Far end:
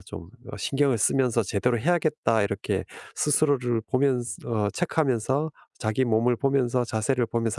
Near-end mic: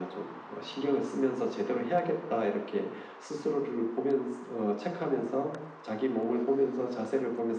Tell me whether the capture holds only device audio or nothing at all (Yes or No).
Yes